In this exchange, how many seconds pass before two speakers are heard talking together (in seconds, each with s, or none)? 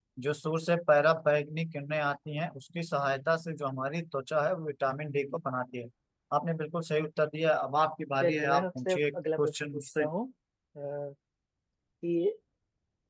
8.2 s